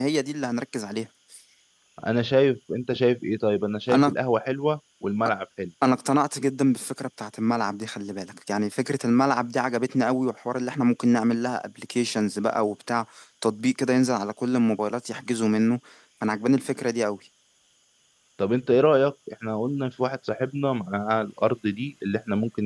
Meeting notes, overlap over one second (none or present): none